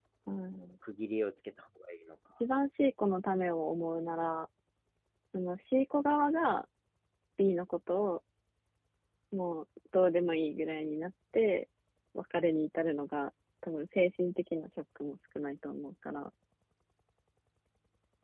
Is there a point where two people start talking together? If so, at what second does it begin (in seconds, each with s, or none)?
none